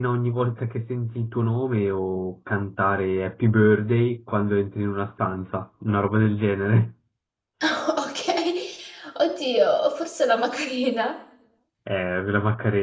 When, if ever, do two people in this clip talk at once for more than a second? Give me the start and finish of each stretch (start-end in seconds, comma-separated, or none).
none